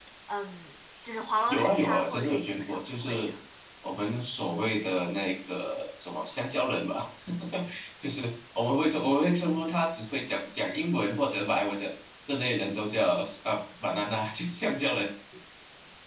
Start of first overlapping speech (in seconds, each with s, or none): 1.5 s